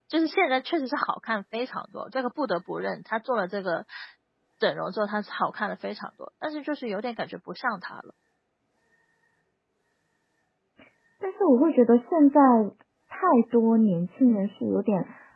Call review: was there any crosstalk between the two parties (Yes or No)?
No